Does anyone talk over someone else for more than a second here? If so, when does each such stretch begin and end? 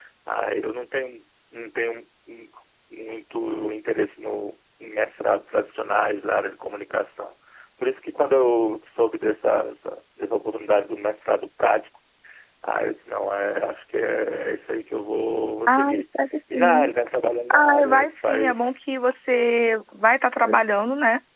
17.5-18.7

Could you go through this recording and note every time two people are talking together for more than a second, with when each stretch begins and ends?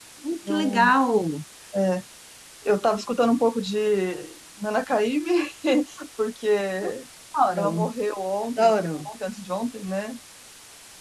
none

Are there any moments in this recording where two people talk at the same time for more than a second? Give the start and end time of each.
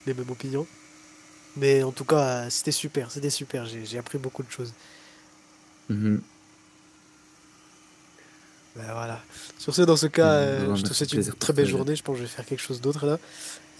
10.2-11.8

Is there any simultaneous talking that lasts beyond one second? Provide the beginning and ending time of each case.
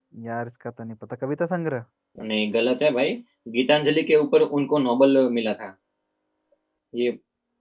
none

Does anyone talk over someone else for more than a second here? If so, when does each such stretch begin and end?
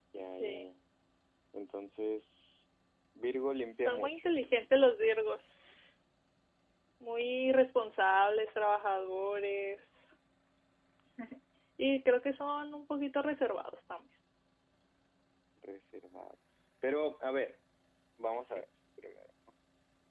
none

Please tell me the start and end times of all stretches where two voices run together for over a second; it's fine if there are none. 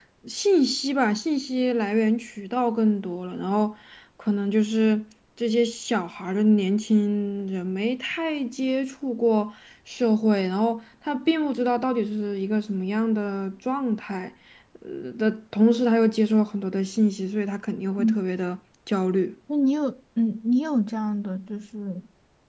none

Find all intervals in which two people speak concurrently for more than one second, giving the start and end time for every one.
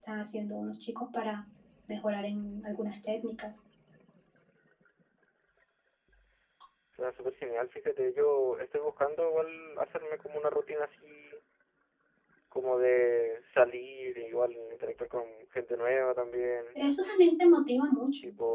none

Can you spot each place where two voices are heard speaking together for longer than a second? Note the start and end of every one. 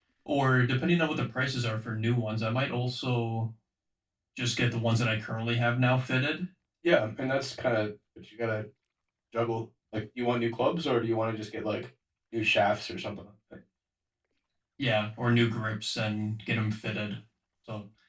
none

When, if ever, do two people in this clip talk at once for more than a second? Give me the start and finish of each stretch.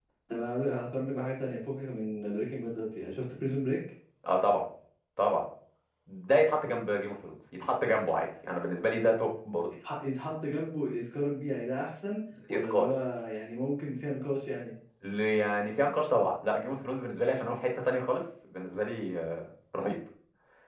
none

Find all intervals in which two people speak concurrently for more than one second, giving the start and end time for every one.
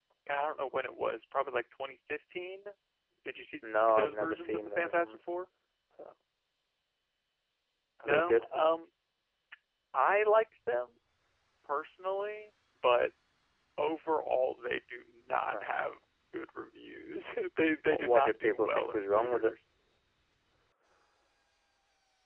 3.9-5.2, 17.9-19.5

